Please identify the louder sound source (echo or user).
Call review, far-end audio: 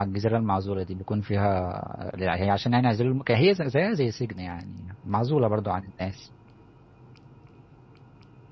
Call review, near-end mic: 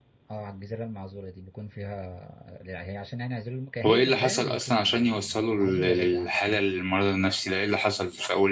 user